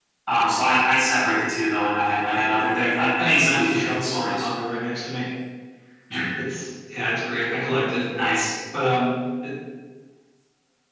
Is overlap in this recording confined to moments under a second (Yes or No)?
No